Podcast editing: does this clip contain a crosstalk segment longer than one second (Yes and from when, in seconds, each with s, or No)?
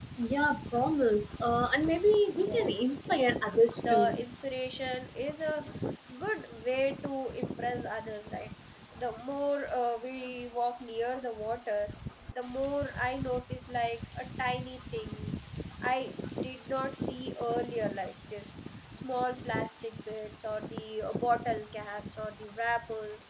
No